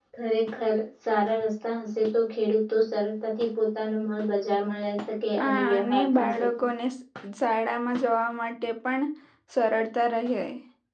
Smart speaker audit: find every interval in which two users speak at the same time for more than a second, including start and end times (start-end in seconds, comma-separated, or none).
5.4-6.6